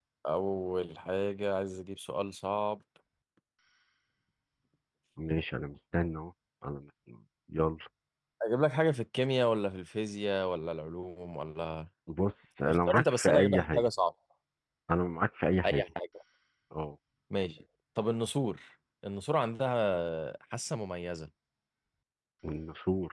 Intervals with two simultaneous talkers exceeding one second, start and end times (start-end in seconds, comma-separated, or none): 12.6-13.9